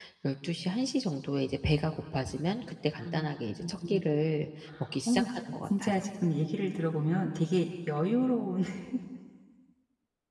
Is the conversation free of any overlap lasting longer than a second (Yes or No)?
Yes